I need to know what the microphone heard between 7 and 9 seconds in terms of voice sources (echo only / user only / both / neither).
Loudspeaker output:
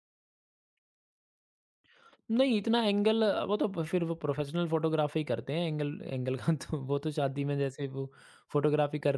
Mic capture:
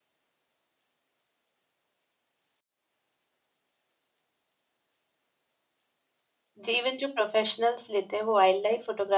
user only